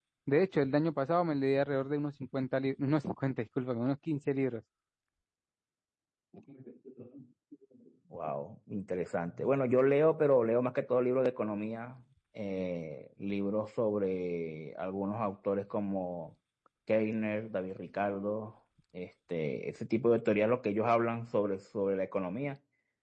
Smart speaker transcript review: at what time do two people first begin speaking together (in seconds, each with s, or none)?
none